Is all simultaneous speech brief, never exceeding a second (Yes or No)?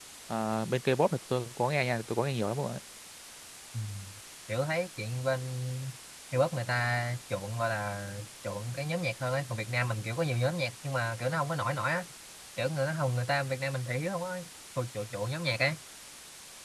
Yes